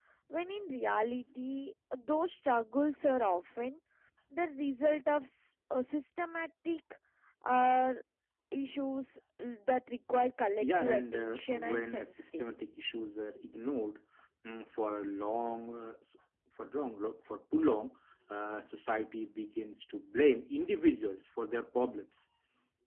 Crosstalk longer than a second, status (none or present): present